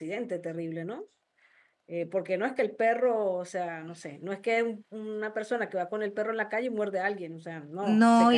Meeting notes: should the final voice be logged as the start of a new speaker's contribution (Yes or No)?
Yes